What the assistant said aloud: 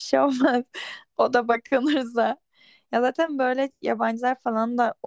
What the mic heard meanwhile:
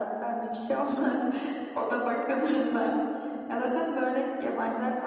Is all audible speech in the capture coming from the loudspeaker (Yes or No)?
Yes